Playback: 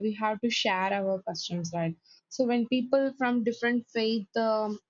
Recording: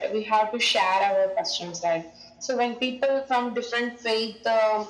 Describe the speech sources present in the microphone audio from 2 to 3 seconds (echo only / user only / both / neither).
echo only